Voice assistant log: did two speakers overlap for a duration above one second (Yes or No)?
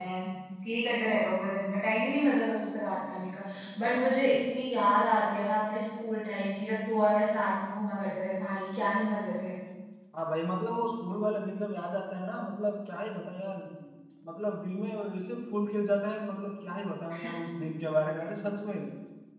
No